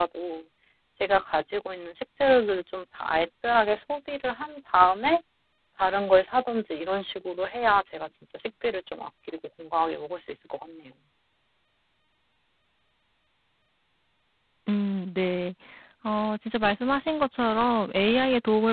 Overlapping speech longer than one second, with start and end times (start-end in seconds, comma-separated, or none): none